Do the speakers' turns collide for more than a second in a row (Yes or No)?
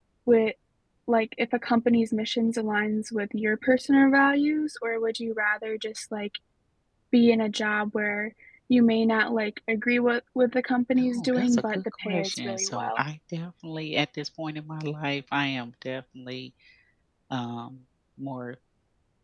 Yes